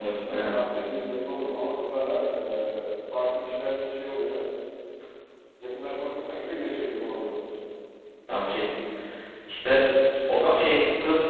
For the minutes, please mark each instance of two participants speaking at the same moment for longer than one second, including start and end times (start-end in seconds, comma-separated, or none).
none